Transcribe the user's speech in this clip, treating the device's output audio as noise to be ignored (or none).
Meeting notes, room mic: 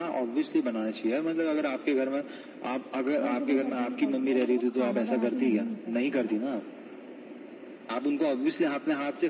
वो सुबह घर से निकलती है बट वो खाना बना के नहीं निकलती है